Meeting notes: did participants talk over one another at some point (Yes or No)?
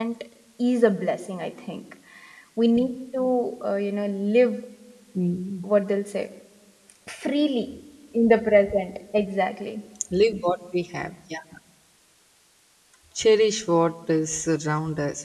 No